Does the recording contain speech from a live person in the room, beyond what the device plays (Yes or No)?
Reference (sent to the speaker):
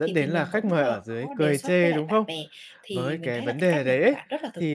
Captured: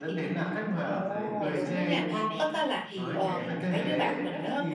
Yes